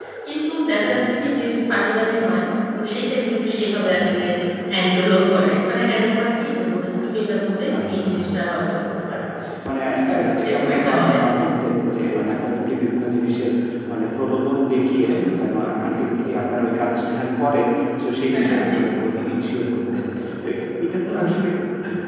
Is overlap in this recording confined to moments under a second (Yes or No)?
No